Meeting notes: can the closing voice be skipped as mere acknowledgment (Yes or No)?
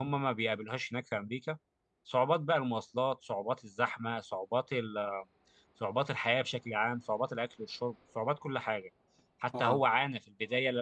Yes